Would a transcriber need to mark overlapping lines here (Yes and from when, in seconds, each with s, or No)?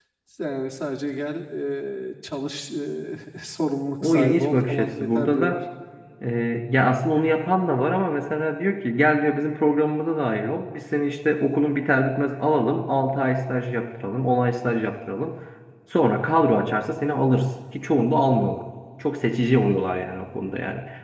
Yes, from 4.0 s